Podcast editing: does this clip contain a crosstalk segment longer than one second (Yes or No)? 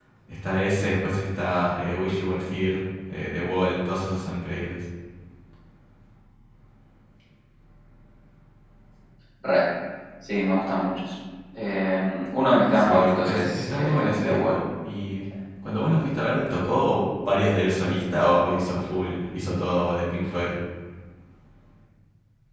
Yes